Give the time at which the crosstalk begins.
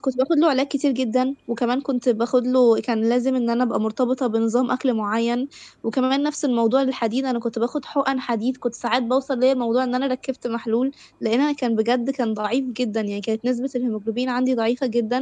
none

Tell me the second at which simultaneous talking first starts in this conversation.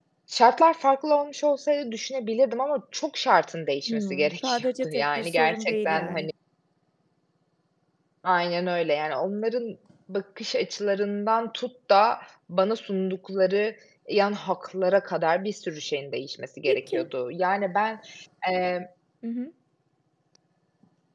3.9 s

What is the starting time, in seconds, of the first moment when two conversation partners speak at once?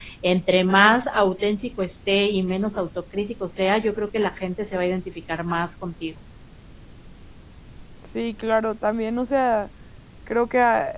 none

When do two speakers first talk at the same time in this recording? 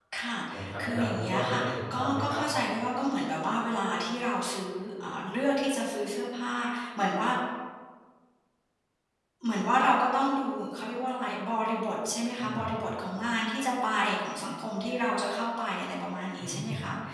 0.8 s

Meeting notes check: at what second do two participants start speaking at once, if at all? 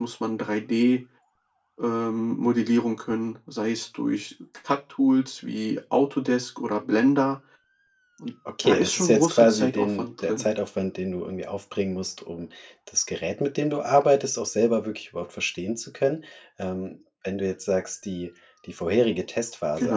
8.6 s

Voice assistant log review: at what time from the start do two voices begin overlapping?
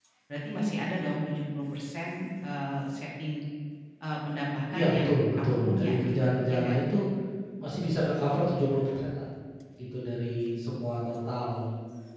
4.7 s

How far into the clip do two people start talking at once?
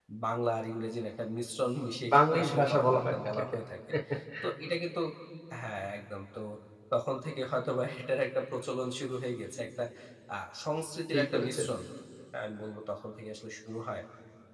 2.1 s

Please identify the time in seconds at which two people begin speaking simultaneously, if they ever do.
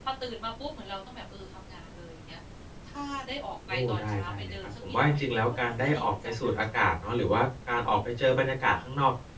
3.7 s

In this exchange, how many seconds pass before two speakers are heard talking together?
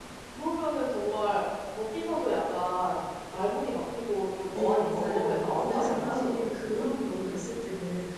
4.5 s

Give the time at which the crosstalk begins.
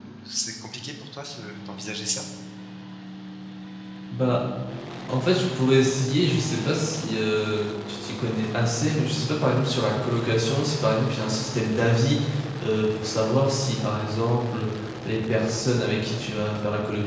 none

